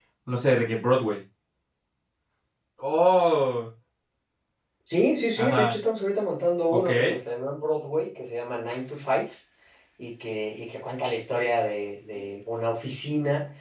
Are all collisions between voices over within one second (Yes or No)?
Yes